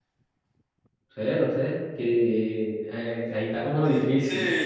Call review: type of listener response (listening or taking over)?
taking over